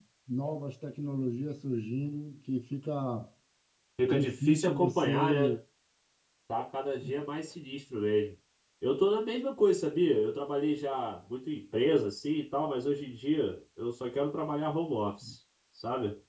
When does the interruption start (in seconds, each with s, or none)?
4.1 s